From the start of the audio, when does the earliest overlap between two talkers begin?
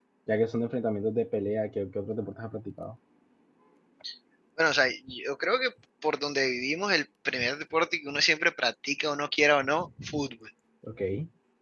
none

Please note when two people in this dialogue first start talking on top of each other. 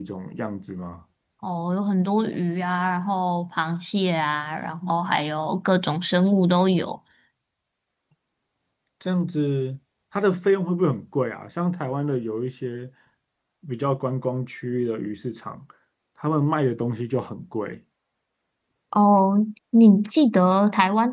none

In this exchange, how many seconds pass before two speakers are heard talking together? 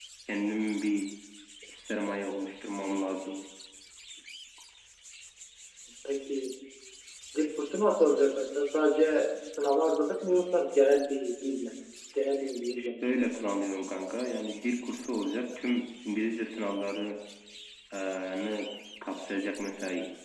none

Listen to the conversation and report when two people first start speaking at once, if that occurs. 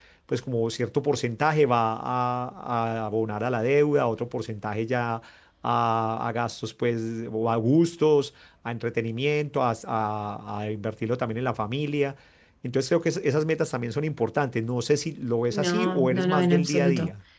15.5 s

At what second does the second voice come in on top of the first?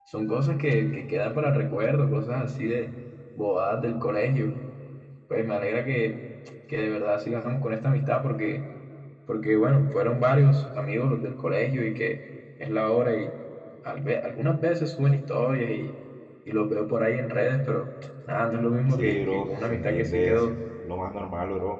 18.9 s

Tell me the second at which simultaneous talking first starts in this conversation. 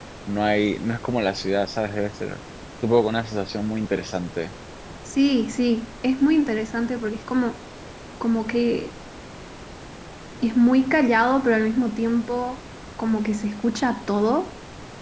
none

